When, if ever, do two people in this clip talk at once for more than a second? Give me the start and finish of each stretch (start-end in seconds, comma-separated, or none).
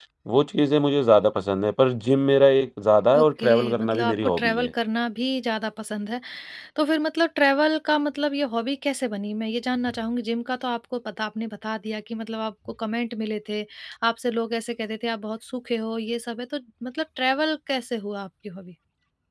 3.2-4.7